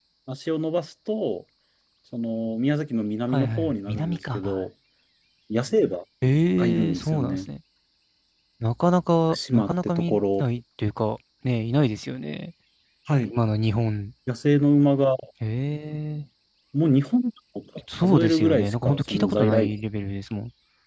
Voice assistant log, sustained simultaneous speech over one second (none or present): present